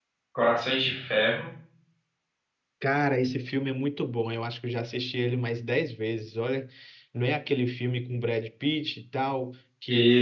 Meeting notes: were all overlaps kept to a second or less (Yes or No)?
Yes